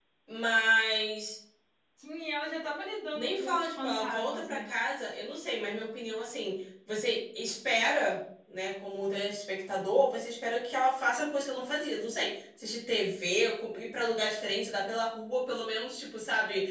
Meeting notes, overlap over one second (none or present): present